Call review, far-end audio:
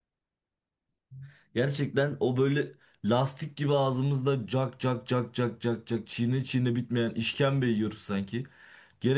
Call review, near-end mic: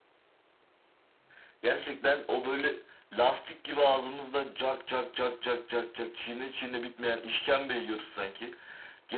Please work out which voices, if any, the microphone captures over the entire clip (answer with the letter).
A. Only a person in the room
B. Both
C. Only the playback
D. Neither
C